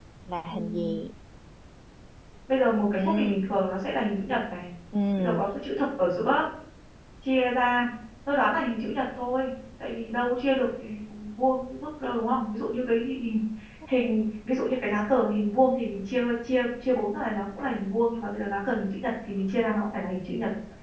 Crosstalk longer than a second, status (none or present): none